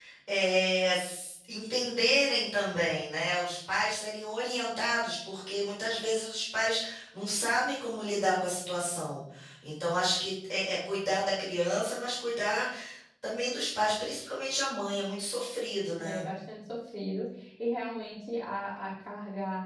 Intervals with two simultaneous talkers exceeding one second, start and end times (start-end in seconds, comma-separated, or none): none